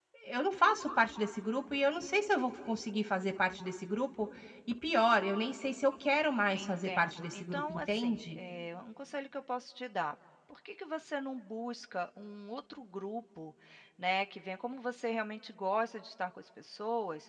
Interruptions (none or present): present